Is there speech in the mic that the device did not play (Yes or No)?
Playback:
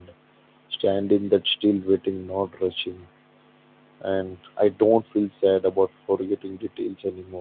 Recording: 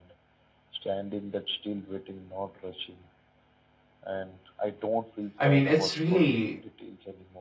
Yes